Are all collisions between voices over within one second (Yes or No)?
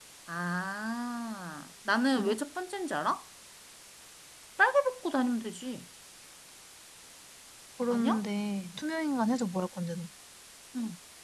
Yes